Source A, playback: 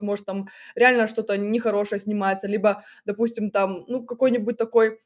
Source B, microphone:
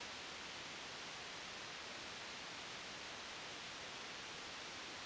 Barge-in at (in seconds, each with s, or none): none